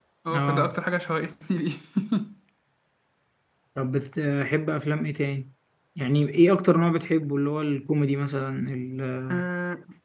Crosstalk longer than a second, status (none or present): none